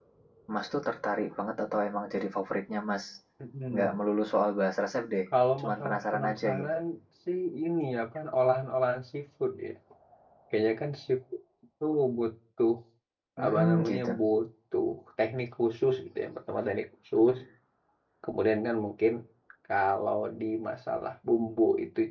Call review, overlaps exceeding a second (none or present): present